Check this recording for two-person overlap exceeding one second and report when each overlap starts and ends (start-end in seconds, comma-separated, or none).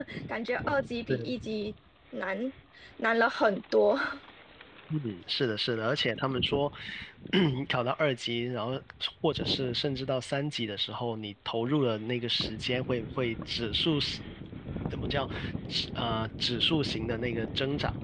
none